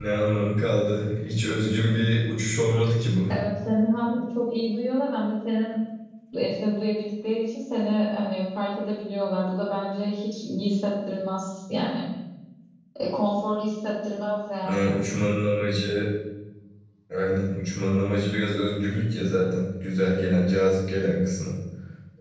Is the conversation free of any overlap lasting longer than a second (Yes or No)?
Yes